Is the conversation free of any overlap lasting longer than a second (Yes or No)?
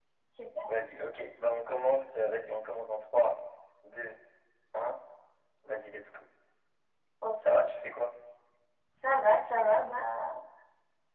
Yes